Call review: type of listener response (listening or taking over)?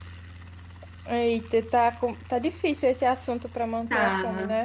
taking over